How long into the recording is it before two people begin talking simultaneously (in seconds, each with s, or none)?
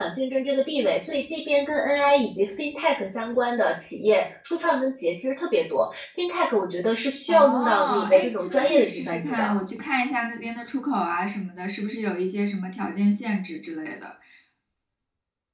7.3 s